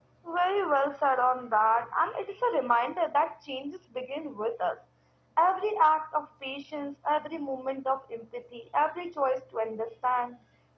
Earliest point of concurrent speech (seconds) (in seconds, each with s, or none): none